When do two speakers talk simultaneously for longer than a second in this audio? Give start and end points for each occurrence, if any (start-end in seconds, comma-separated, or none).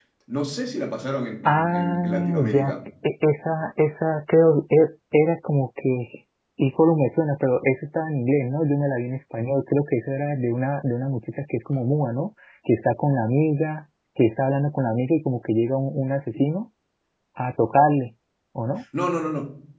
1.4-2.7